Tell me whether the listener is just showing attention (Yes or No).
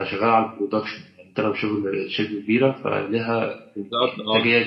No